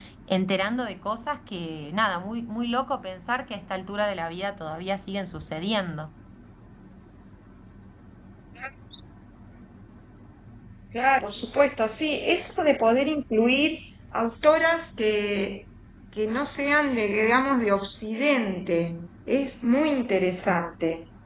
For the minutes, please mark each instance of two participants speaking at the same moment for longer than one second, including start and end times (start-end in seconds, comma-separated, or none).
none